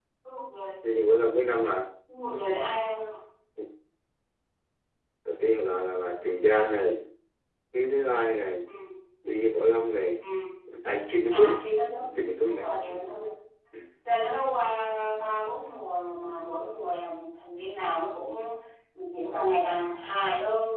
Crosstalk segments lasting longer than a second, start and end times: none

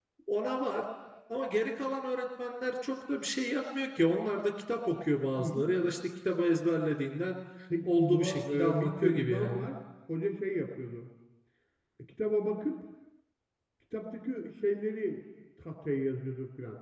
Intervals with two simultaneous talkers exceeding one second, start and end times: 7.9-9.7

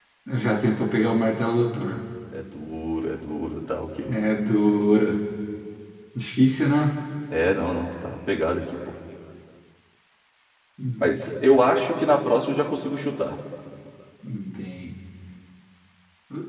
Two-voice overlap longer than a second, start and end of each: none

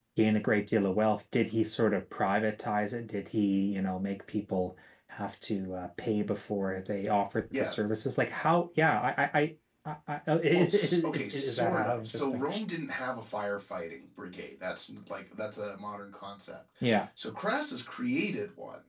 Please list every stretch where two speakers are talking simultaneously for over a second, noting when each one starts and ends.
10.5-12.4

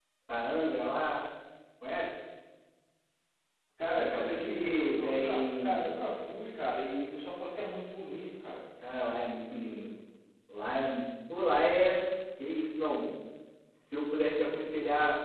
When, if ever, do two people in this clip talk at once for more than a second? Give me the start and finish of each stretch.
4.0-5.8

